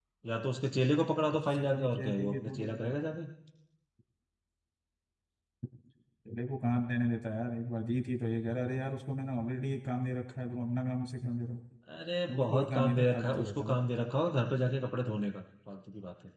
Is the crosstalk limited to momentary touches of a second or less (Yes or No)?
No